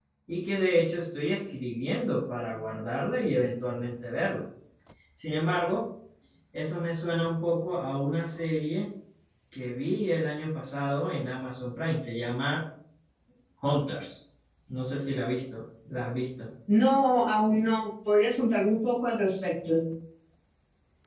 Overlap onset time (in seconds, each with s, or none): none